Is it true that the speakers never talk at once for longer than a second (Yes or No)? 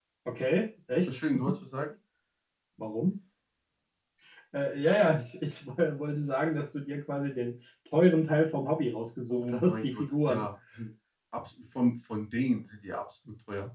No